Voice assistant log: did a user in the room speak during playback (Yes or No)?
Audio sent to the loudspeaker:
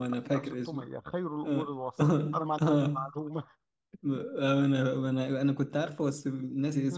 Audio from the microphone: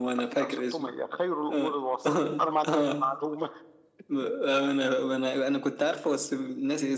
No